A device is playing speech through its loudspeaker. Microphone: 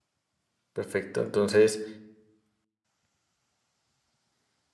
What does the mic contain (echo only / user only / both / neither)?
user only